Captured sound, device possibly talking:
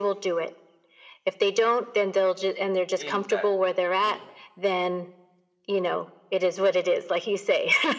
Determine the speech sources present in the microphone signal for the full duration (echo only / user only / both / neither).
both